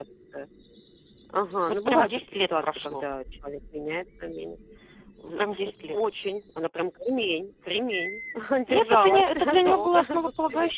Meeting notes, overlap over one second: present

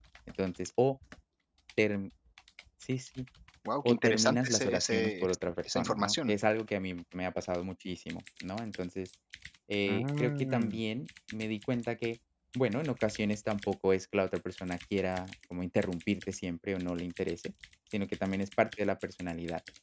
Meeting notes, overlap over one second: present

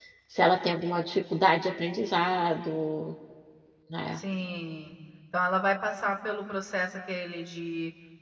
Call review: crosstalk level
none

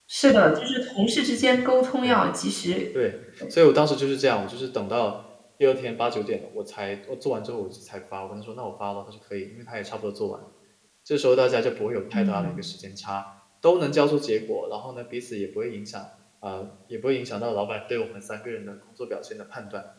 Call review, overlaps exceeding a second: none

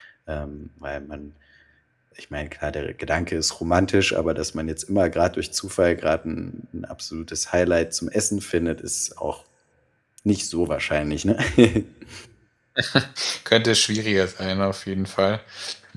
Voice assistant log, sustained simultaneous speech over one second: none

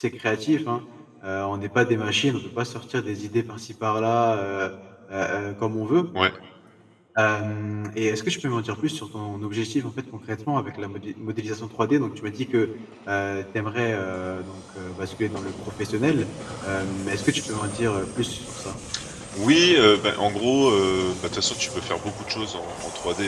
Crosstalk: none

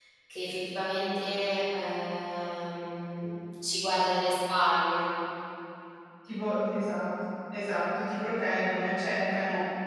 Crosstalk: none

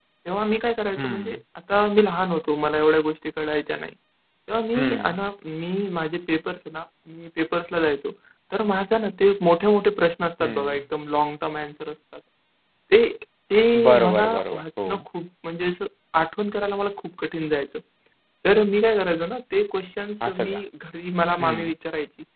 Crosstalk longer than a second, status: present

